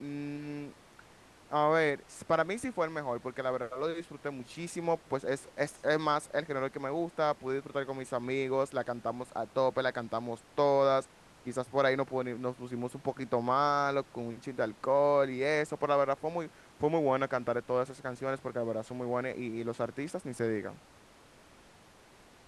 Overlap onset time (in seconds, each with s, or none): none